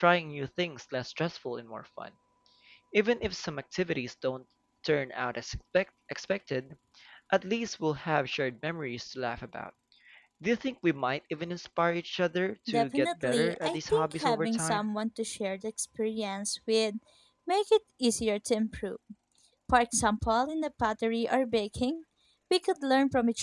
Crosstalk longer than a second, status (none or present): present